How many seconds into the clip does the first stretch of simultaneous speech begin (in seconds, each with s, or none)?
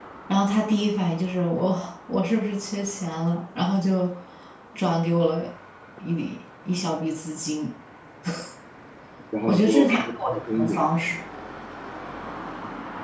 9.5 s